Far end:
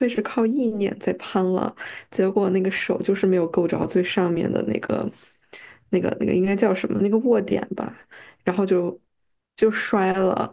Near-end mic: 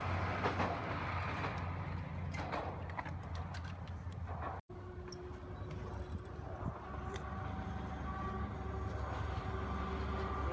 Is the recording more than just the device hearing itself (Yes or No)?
No